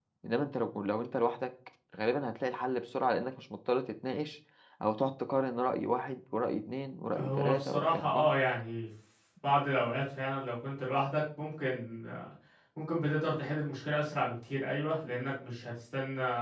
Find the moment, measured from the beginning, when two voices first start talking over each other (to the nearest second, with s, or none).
7 s